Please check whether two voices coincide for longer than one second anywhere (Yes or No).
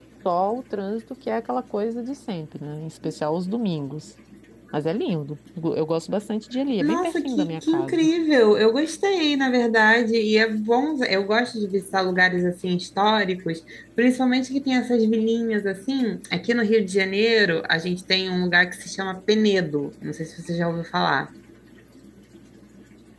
Yes